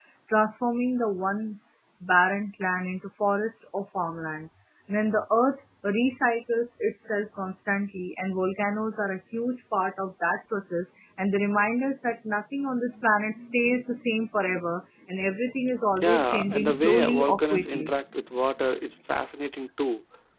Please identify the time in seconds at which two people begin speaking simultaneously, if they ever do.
16.0 s

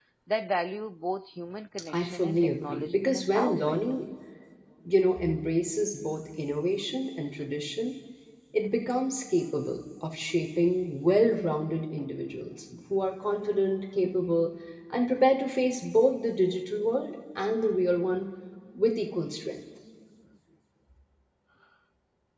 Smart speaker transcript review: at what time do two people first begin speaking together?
1.9 s

